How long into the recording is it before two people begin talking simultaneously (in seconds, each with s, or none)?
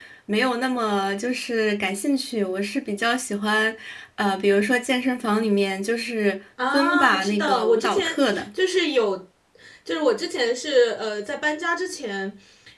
6.6 s